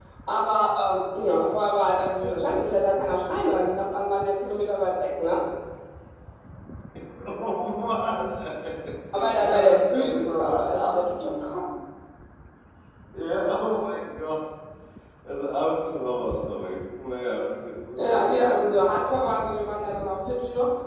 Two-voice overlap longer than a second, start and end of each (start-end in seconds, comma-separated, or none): 9.1-11.7, 18.0-20.0